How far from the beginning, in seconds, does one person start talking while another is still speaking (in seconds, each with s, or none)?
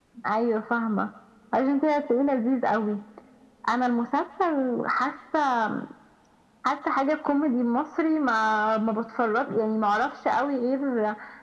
none